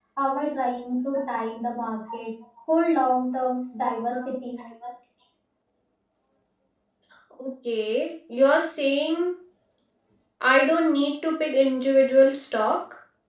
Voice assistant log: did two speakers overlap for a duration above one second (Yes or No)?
No